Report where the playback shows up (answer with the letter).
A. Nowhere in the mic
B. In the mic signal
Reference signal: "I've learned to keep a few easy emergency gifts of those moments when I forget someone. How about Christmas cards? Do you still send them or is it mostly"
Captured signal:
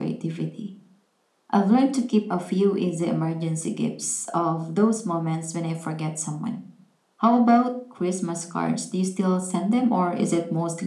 B